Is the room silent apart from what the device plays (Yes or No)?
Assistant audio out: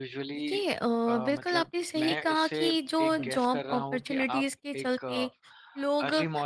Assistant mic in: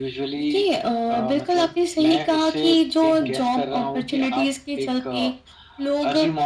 Yes